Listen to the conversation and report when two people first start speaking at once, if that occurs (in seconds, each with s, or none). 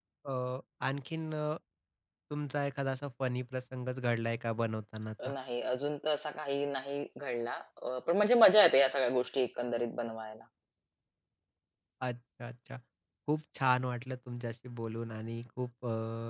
none